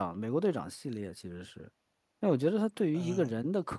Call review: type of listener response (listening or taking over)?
listening